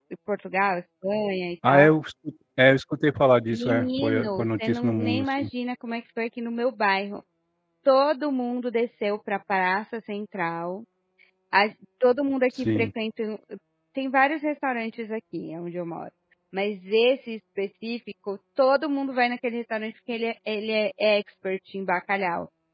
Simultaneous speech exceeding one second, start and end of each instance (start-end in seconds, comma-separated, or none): 3.5-5.5